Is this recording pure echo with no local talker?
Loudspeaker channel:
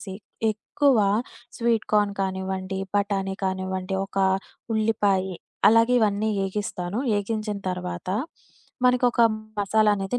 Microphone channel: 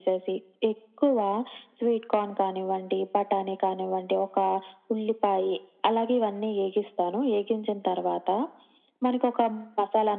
Yes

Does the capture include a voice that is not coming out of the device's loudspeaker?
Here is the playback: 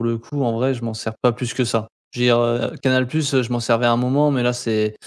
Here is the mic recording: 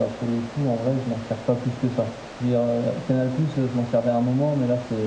No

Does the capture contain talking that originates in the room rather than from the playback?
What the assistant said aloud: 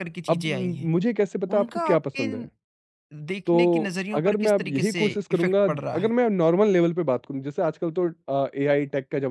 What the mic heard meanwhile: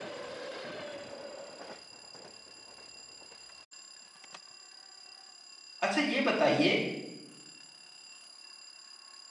Yes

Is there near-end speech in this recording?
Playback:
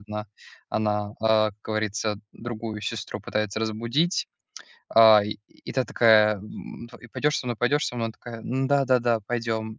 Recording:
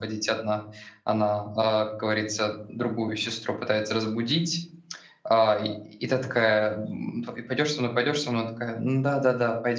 No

